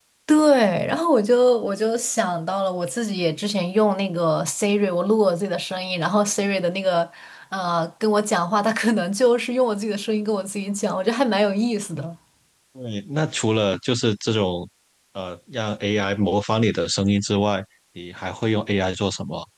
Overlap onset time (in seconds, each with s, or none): none